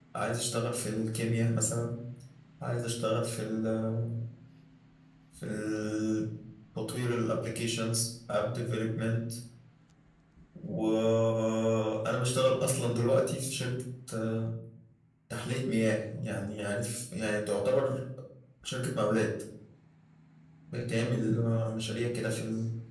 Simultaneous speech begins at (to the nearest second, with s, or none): none